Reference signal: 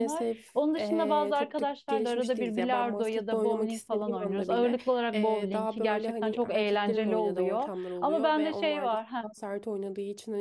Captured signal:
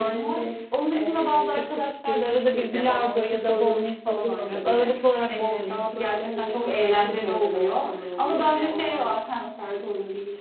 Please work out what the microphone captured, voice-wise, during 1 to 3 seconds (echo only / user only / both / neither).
echo only